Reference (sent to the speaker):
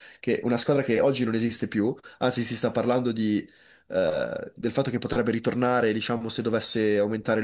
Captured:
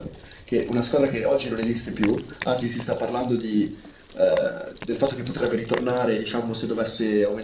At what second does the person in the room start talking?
none

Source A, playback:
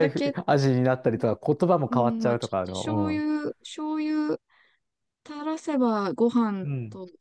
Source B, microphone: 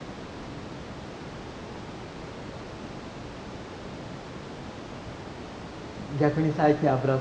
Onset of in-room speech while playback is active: 6.0 s

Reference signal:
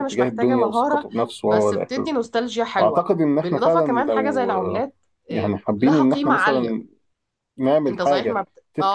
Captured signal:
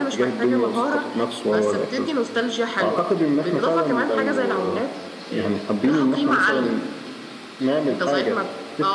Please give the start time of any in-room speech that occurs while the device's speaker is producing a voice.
none

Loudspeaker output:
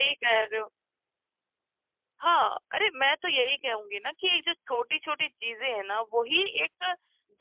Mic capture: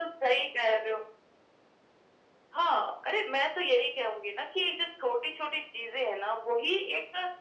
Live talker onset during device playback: none

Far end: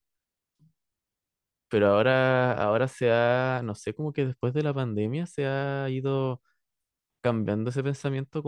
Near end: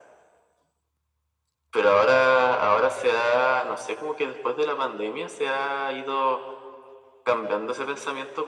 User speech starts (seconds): none

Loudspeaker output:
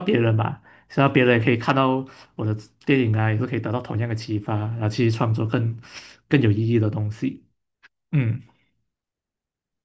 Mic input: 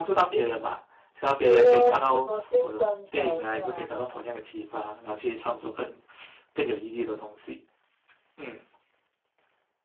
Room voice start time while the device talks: 1.4 s

